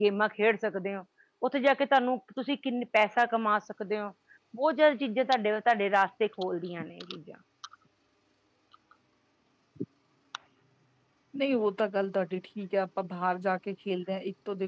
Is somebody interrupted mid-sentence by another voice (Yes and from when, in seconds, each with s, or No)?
No